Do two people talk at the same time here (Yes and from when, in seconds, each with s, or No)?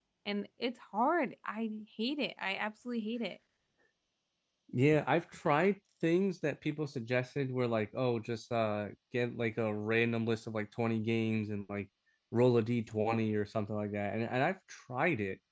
No